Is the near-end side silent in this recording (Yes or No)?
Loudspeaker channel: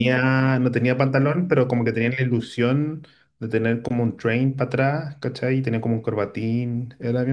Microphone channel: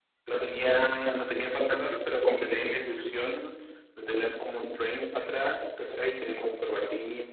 Yes